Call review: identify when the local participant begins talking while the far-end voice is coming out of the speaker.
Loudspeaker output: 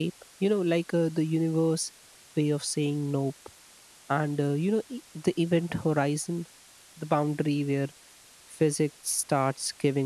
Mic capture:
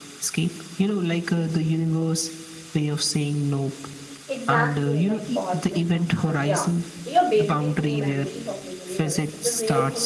4 s

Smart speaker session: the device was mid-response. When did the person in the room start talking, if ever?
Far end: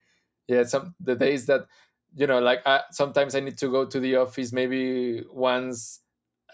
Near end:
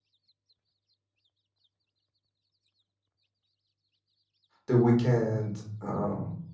5 s

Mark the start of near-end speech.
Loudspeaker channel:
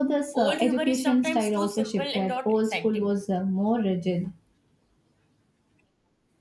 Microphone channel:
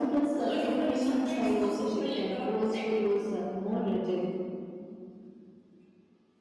none

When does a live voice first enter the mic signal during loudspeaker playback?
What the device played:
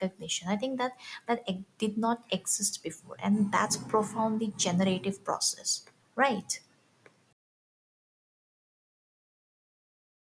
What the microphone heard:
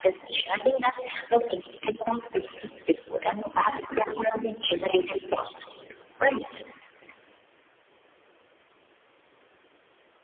none

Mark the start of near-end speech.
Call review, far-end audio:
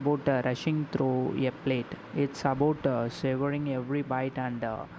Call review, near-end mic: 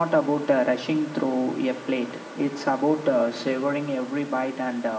none

